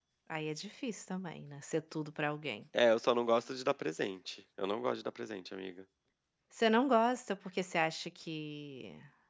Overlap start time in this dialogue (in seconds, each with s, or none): none